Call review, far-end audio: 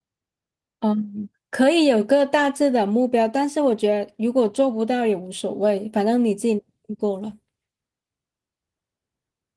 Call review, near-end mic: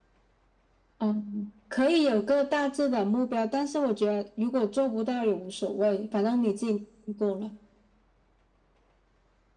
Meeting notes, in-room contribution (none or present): none